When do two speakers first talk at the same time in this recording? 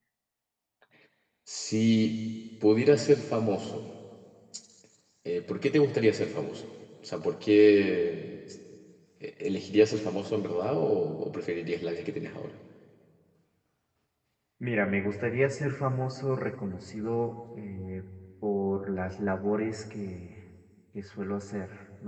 none

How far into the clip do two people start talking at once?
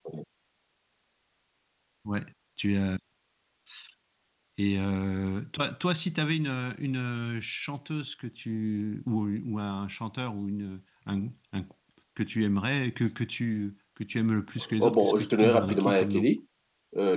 15 s

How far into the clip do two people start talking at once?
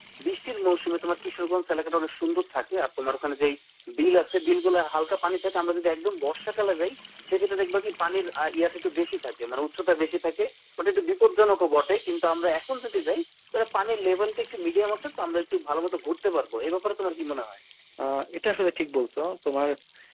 none

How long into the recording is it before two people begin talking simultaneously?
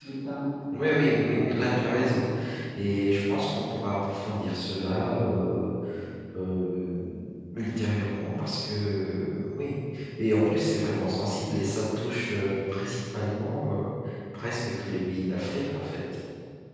1 s

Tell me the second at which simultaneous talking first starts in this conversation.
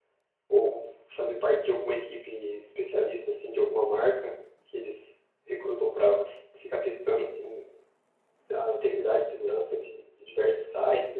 none

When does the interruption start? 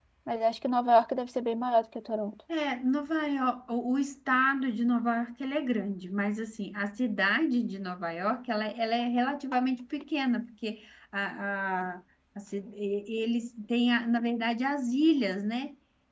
none

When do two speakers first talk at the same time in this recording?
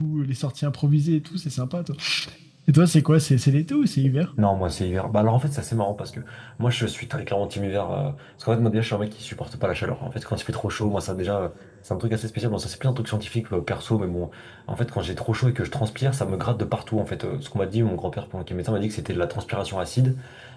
none

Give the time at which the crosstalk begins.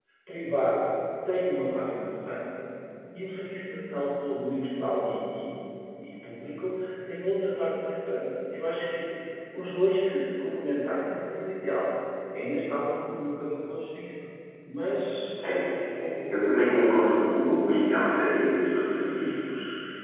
none

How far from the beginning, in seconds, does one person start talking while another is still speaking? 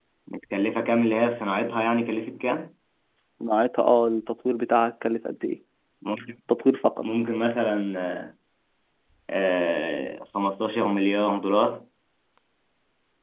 none

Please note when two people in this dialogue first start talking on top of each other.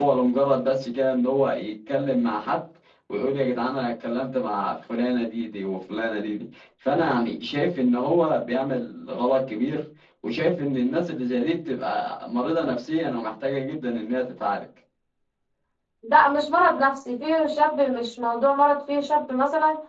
none

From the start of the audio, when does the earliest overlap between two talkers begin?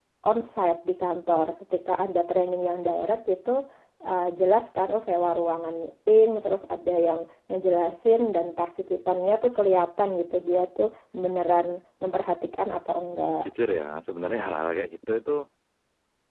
none

